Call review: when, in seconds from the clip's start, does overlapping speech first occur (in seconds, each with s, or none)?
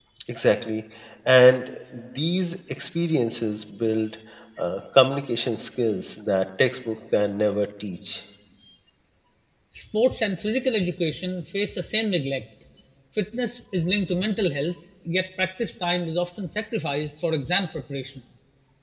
none